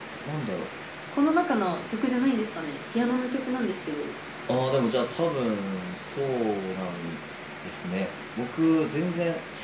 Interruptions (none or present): none